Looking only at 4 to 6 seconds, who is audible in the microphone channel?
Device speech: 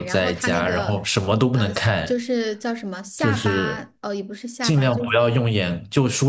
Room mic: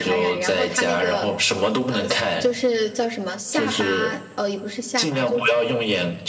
echo only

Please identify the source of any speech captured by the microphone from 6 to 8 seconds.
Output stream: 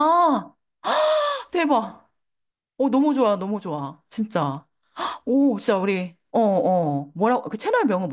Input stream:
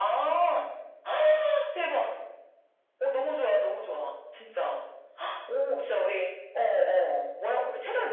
echo only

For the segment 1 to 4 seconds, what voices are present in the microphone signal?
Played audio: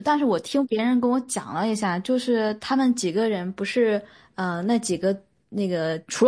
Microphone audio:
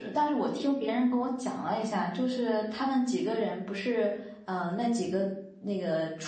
echo only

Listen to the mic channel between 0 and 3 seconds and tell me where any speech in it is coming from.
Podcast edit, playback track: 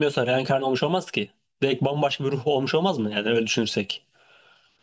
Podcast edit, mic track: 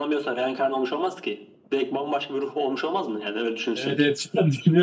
echo only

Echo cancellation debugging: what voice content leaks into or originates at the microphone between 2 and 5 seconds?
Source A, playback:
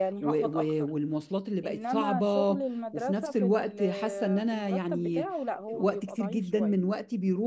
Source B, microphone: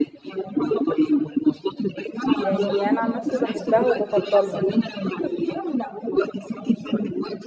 both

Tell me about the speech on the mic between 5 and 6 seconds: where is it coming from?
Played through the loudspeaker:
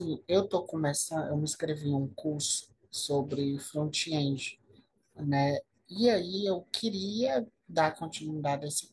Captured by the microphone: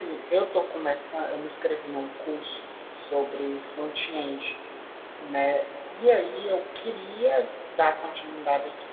echo only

